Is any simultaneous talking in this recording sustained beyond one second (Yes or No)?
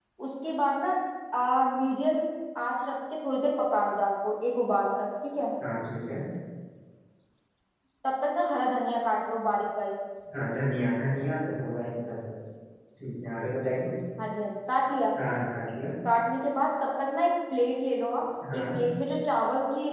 No